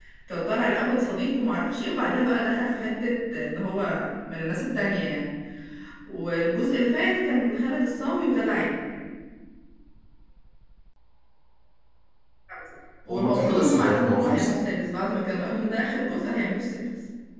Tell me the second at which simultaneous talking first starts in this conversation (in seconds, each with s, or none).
13.1 s